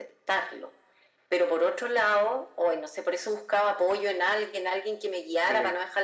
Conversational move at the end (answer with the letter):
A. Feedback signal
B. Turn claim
A